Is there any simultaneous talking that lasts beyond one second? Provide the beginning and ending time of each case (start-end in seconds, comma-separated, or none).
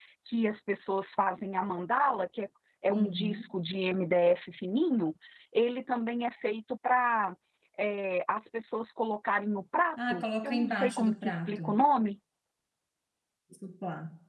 10.1-11.8